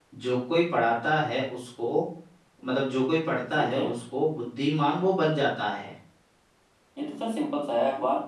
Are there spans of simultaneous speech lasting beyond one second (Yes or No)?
No